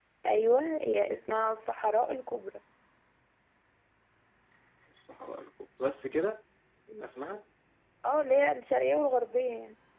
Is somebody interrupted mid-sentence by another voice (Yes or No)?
No